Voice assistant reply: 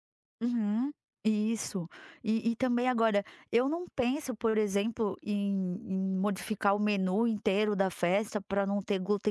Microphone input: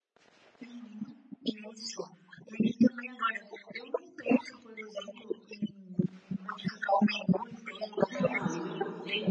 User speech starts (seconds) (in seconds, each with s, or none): 8.1 s